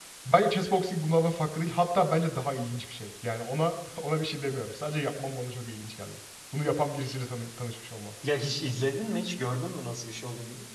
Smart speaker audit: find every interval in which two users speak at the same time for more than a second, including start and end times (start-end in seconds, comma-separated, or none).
none